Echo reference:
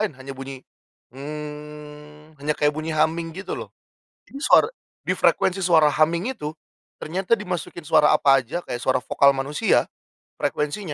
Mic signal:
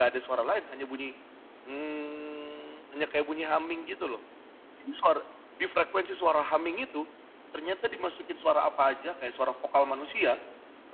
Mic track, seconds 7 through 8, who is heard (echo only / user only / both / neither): echo only